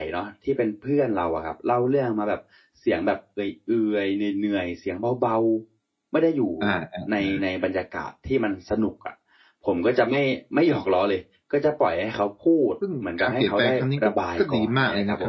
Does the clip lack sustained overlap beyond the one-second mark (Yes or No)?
No